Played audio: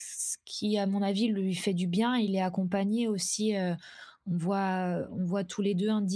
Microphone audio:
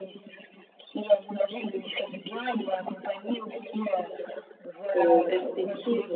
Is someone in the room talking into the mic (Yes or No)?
Yes